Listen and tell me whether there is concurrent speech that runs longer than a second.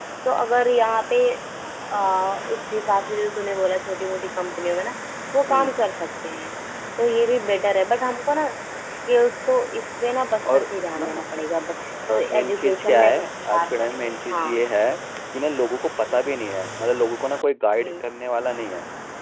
Yes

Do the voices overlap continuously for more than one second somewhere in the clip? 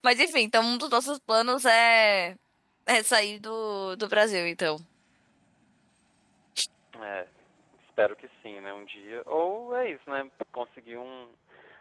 No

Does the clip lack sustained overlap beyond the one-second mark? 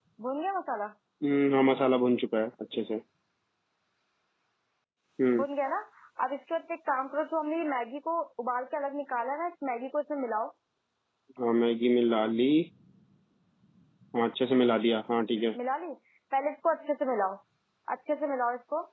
Yes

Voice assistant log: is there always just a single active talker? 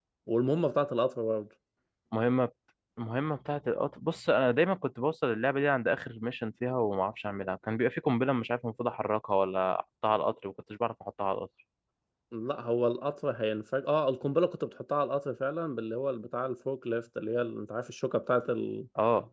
Yes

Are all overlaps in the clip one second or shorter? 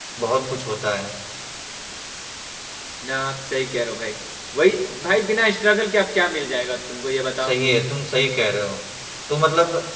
Yes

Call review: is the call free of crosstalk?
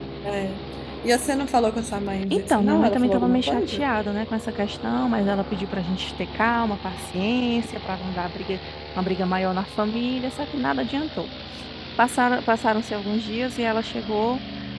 No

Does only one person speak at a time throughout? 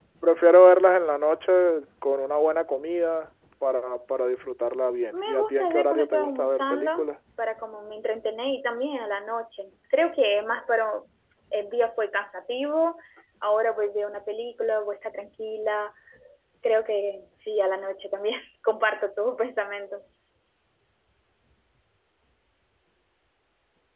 No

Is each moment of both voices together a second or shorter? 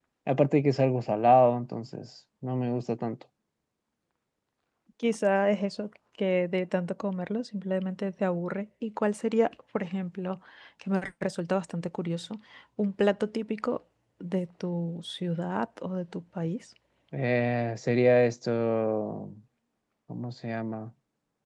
Yes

